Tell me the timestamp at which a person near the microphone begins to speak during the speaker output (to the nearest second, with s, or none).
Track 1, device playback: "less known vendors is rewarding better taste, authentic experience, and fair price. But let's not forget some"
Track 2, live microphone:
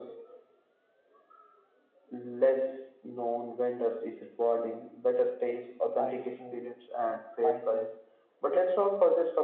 6 s